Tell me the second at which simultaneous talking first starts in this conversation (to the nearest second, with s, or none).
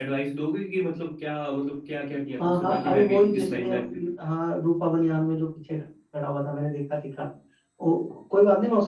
2 s